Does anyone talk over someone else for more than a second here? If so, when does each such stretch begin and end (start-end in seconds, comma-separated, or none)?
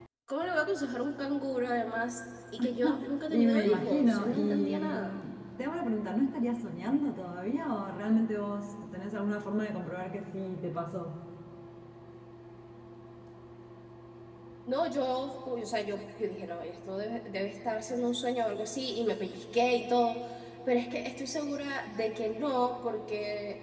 3.3-5.2